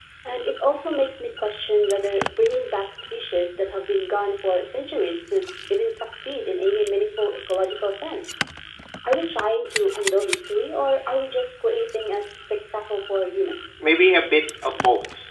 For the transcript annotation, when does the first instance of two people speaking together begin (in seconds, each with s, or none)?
none